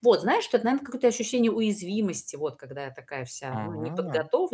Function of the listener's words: listening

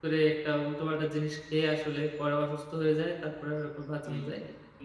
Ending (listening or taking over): taking over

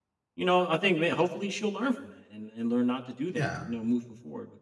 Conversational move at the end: listening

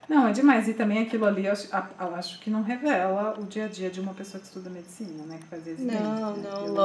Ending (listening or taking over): taking over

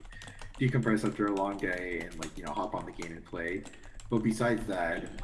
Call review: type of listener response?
listening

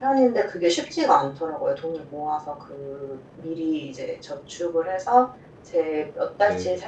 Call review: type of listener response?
listening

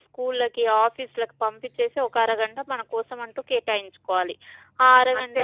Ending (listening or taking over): listening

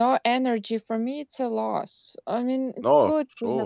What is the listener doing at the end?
listening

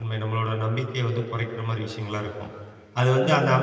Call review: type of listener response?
listening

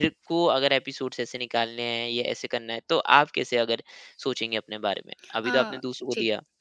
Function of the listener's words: taking over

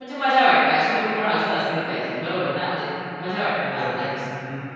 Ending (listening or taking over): taking over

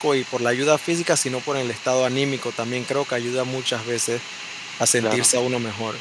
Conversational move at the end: listening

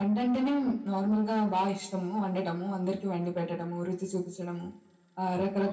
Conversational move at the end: listening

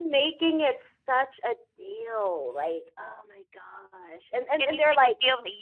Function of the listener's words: taking over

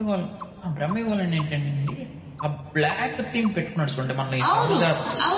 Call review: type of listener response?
taking over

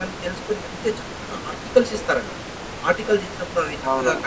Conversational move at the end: listening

